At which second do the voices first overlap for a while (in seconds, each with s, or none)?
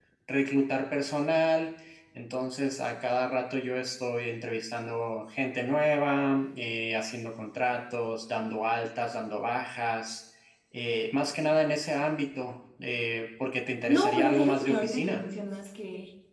13.9 s